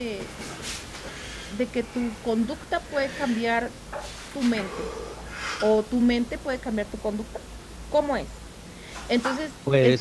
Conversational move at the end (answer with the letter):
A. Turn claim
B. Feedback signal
B